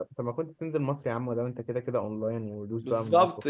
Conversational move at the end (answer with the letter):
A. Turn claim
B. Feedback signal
A